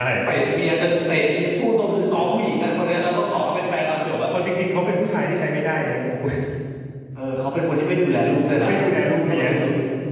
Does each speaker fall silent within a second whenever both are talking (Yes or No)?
Yes